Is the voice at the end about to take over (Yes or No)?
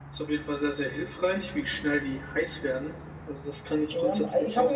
Yes